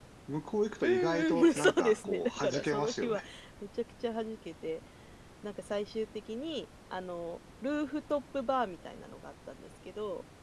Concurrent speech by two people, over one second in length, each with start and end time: 0.8-3.2

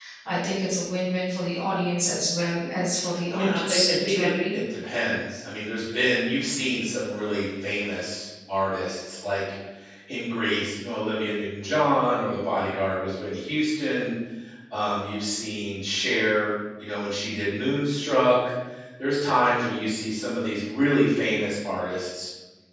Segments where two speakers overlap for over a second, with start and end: 3.3-4.5

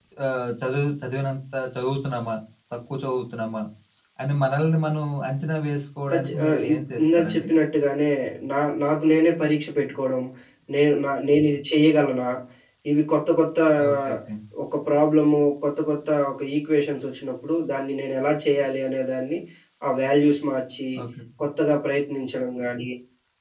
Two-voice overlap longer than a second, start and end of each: 6.1-7.5

